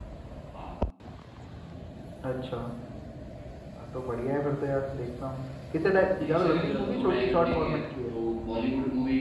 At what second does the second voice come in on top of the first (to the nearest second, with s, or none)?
6 s